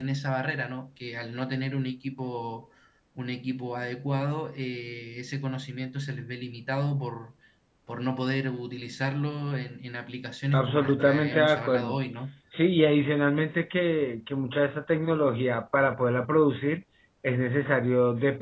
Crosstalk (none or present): present